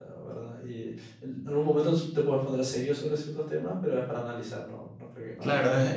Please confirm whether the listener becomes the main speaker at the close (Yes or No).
Yes